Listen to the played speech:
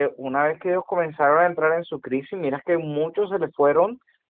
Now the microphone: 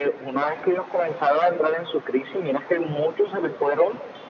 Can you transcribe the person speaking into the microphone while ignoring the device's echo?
none

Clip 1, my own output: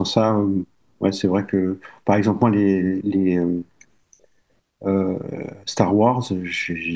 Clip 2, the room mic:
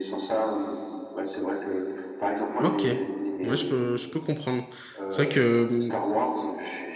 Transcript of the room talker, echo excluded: Ok. Ouais, je peux, je peux comprendre. C'est vrai que hum,

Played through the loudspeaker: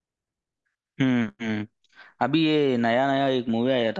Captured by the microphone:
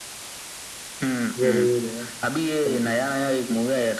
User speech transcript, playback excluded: जरूर यार जरूर। यार।

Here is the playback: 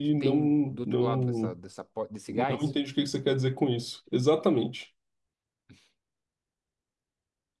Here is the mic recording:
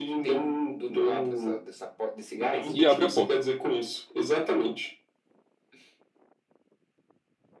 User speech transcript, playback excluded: e abre a porta.

